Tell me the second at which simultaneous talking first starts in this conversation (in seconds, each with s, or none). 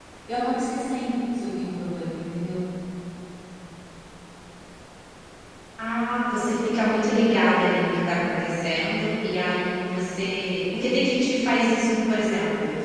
none